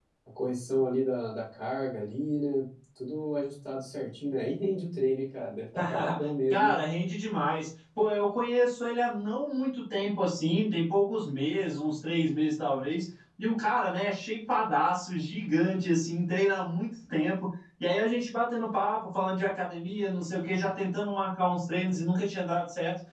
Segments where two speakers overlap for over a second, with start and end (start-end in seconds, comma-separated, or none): none